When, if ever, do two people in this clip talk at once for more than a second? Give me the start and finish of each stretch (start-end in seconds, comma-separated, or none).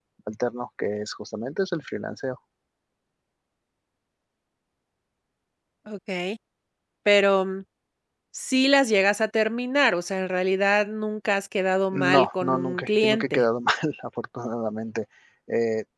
11.9-13.4